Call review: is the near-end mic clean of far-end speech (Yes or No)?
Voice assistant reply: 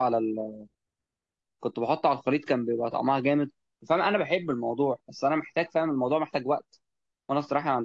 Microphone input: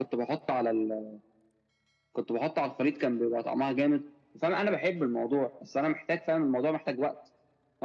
No